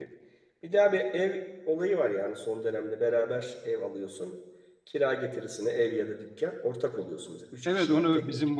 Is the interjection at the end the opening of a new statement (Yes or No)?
Yes